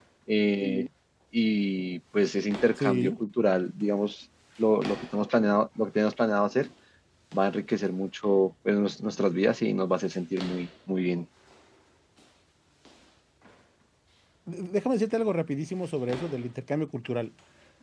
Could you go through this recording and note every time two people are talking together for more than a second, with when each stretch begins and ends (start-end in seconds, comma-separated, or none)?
none